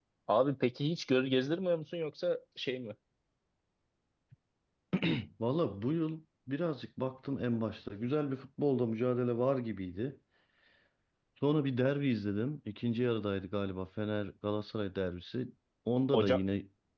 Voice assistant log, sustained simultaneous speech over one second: none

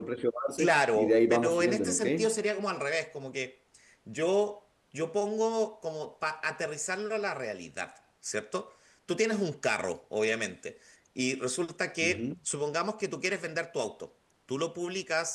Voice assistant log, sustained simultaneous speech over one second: present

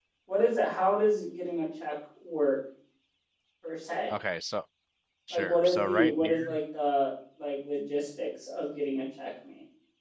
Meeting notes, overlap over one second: present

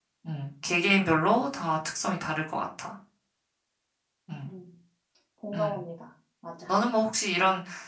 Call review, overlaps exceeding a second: none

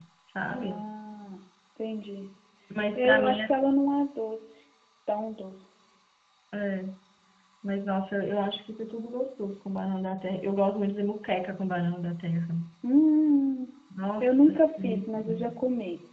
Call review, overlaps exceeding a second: present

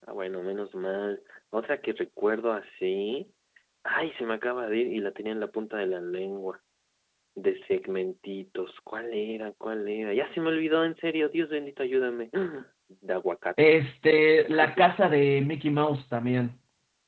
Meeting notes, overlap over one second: none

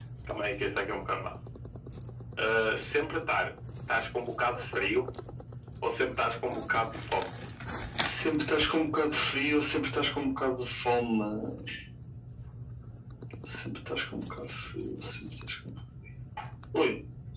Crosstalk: none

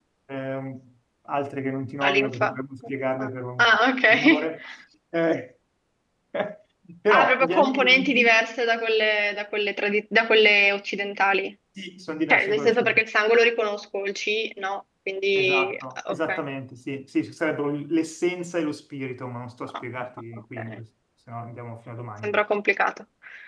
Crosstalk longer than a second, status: present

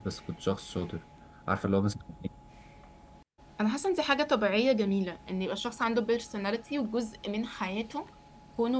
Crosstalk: none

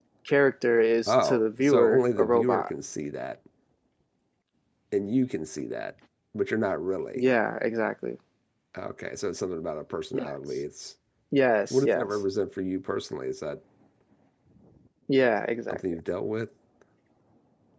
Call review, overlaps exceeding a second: present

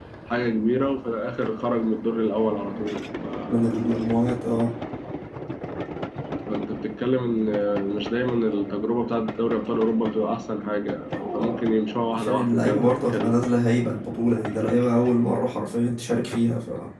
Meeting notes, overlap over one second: present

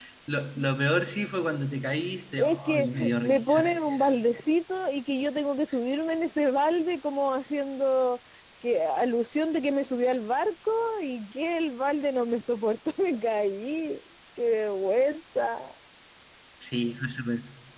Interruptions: present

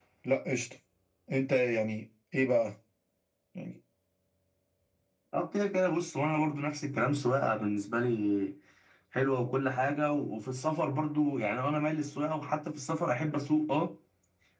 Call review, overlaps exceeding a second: none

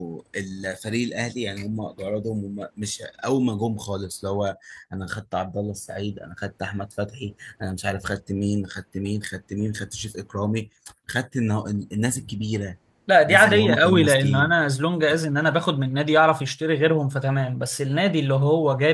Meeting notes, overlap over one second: present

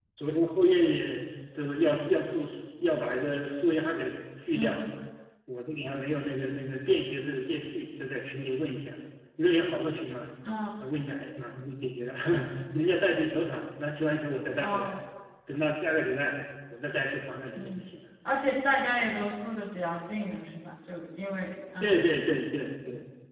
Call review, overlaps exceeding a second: none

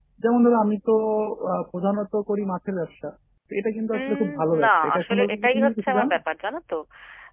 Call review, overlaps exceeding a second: present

